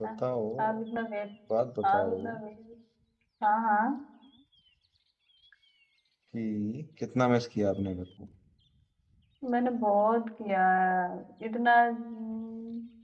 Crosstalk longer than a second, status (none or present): none